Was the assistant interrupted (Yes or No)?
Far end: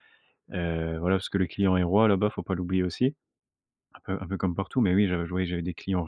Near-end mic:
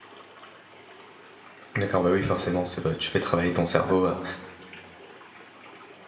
Yes